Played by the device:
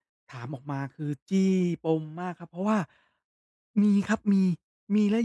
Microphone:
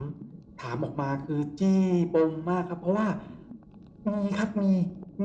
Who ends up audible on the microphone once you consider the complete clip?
echo only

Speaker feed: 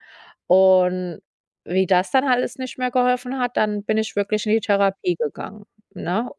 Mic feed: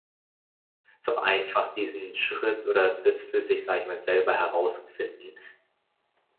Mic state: user only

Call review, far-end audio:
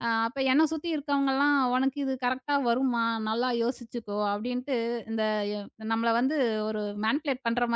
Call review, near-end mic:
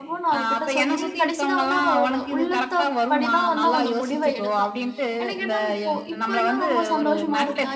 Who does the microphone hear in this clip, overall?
both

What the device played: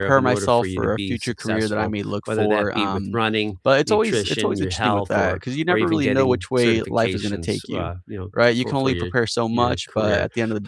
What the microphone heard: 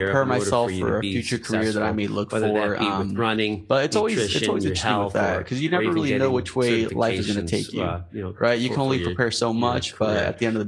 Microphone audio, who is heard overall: echo only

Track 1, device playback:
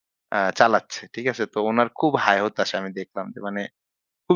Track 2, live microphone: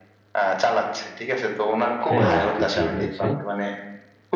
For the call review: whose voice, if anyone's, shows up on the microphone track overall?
both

